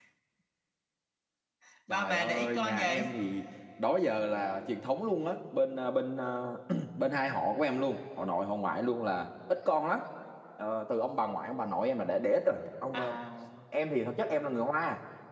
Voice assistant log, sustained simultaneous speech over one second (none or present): present